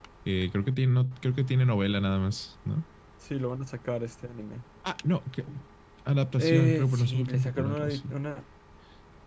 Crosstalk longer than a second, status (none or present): present